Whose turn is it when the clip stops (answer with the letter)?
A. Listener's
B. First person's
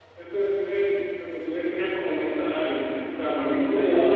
B